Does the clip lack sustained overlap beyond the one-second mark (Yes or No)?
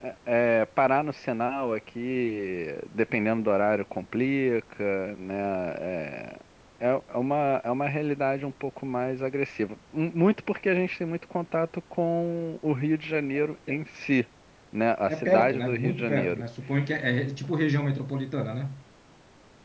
No